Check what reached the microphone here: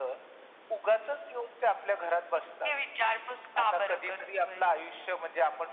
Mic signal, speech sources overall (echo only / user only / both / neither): echo only